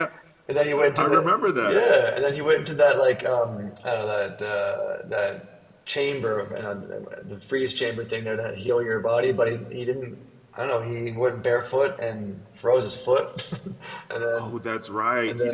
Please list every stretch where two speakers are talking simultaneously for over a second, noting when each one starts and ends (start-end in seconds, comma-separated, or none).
none